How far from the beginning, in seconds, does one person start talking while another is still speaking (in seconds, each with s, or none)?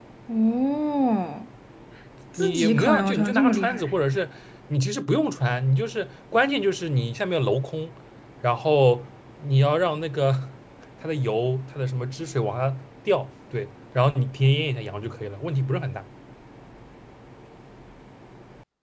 2.4 s